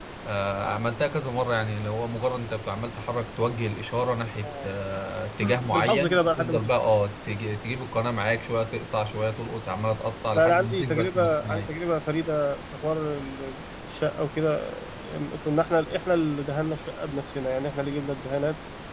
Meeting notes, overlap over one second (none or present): present